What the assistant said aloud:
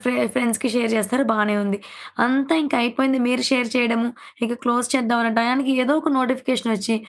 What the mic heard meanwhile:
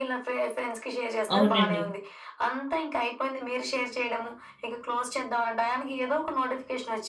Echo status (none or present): present